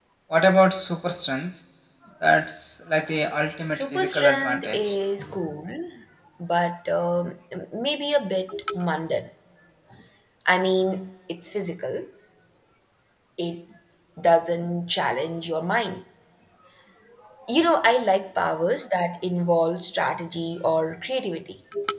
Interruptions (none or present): present